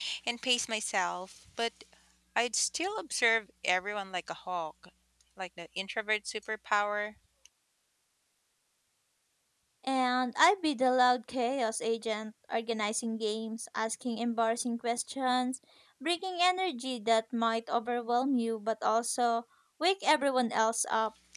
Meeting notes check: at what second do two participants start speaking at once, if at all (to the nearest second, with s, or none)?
none